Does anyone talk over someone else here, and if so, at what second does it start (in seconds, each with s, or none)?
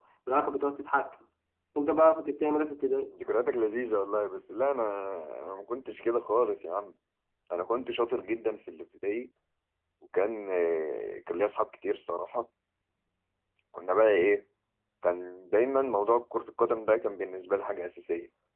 none